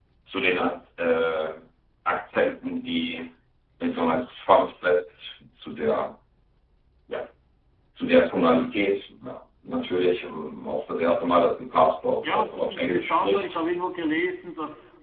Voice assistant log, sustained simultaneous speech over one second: present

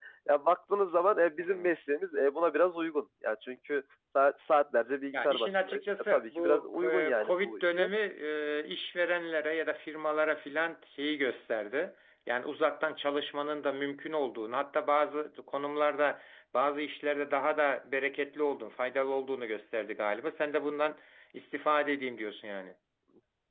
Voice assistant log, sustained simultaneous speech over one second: present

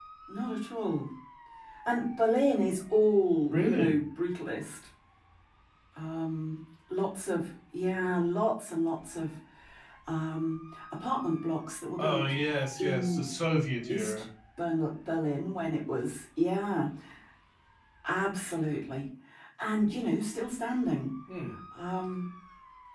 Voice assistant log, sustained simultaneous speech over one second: none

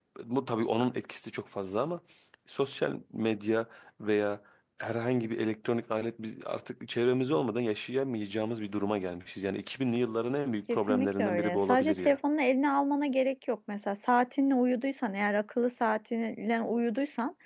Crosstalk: present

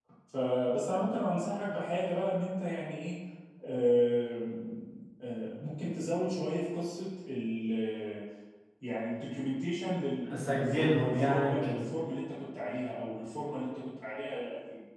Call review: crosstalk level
present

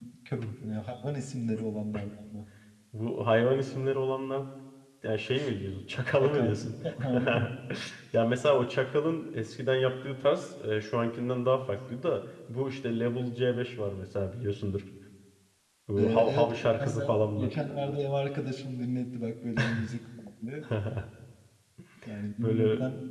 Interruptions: present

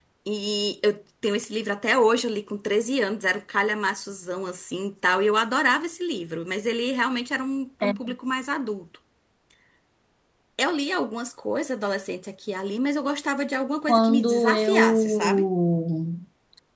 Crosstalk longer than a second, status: present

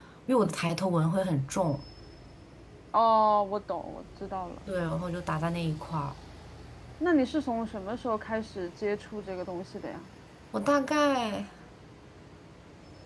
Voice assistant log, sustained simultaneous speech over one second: none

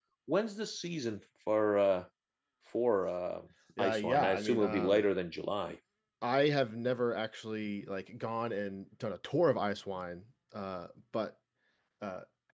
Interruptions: present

